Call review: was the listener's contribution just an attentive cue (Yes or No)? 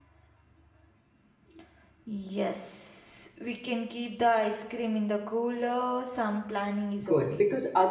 No